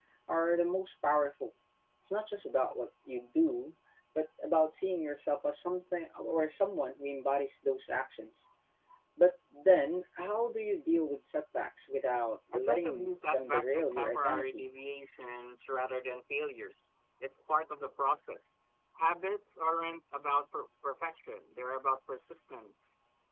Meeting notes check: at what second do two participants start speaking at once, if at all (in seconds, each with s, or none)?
12.5 s